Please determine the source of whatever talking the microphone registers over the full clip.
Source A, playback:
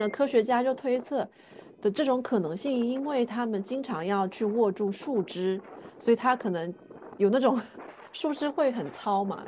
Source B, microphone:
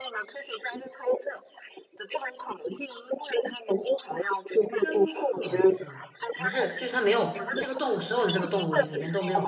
both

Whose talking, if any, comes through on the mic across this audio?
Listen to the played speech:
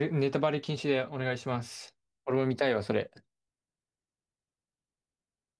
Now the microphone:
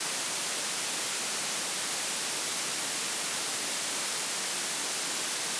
neither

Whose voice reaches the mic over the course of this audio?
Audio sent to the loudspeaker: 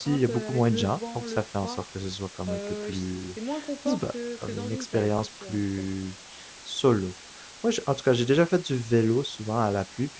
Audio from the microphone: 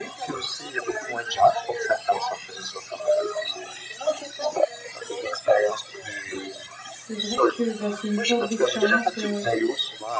both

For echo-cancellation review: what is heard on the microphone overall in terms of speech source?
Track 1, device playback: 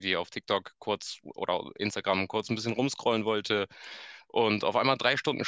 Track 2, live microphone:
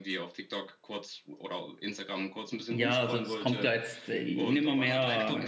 both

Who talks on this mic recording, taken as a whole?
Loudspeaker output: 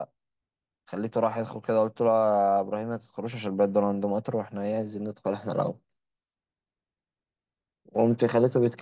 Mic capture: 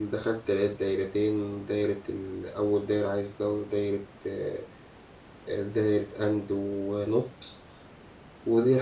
user only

